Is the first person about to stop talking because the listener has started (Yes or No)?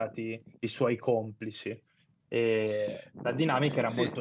Yes